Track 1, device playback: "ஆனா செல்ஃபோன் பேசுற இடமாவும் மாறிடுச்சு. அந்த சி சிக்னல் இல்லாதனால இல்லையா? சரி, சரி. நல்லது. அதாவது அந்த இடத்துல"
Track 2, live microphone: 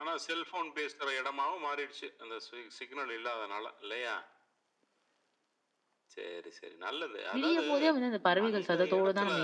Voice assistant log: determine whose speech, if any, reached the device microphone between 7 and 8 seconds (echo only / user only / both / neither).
both